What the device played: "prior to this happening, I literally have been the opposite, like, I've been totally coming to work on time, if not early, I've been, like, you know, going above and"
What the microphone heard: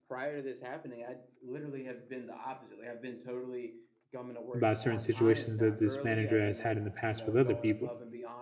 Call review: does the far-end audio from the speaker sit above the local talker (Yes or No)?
No